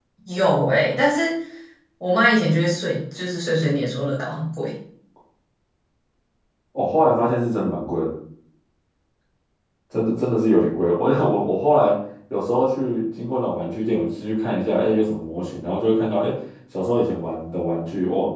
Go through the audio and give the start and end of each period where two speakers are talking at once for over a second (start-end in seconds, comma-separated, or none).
none